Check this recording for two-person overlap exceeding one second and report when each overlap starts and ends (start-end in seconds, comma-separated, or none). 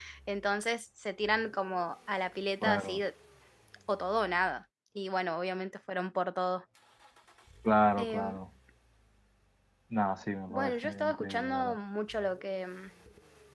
10.5-11.8